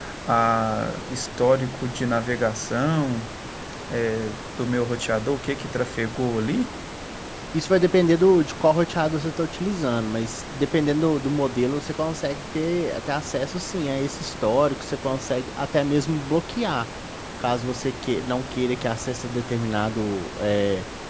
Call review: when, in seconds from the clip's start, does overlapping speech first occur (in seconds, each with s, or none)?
none